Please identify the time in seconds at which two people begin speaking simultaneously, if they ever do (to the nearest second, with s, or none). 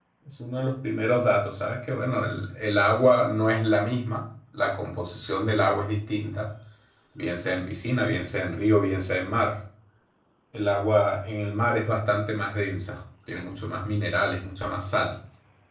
none